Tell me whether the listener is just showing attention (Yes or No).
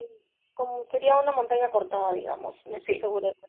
Yes